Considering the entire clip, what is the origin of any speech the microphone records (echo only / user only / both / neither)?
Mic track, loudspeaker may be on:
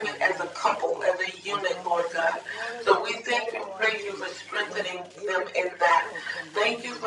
both